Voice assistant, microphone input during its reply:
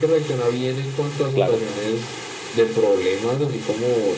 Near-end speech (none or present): present